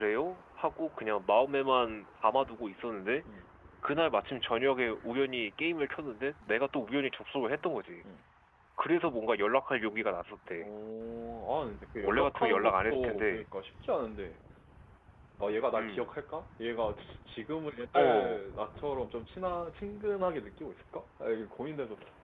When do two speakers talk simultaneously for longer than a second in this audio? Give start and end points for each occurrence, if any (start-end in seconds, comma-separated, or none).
12.0-13.4